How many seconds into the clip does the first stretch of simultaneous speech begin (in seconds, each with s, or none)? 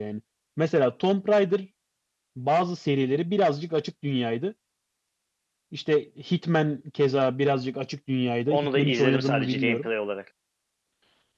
8.5 s